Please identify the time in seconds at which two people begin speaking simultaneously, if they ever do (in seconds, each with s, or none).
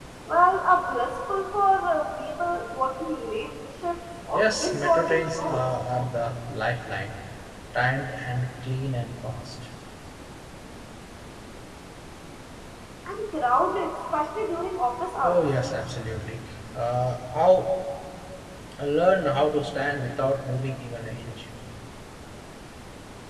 4.3 s